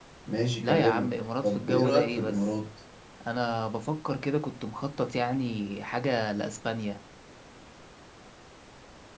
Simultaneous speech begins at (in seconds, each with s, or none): 0.6 s